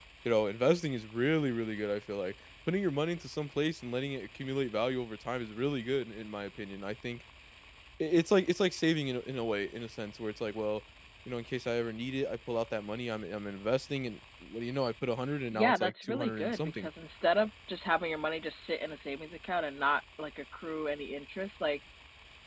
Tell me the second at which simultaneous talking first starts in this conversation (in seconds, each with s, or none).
15.5 s